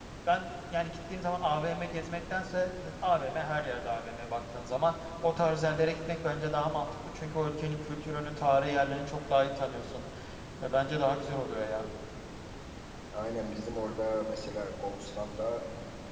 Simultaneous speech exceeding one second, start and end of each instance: none

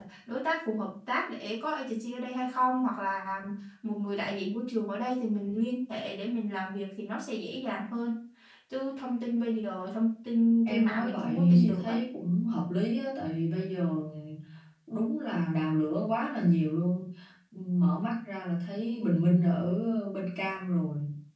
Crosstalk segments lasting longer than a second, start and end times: 10.7-12.0

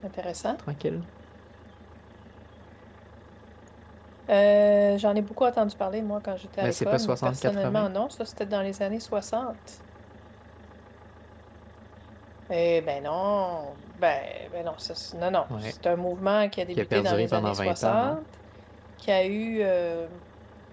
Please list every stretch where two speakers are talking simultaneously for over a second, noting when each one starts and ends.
6.6-7.9, 16.8-18.2

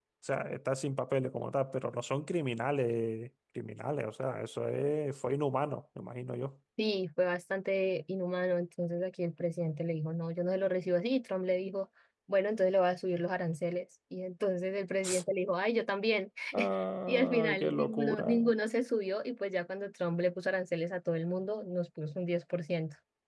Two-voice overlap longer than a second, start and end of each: 17.1-18.4

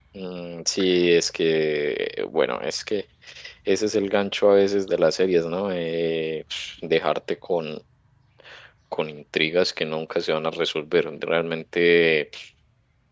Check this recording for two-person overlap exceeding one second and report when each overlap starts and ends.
none

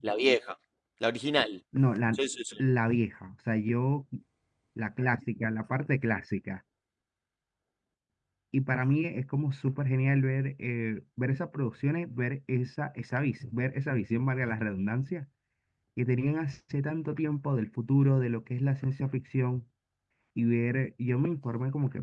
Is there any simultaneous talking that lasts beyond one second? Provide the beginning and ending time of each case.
none

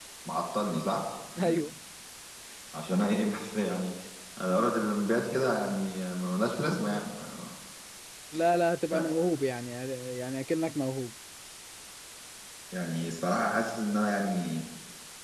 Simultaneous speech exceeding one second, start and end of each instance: none

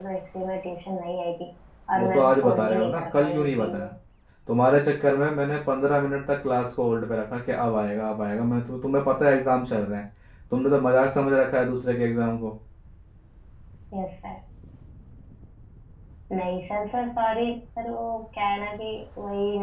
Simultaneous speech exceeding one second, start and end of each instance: 2.0-3.9

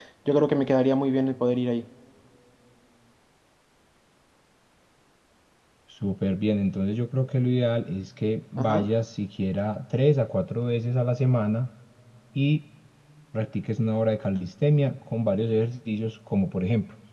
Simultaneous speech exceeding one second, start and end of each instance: none

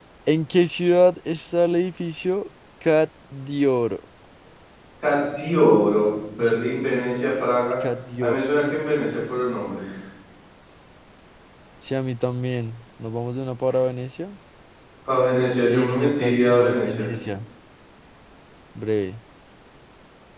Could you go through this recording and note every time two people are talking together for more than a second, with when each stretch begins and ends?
15.7-17.1

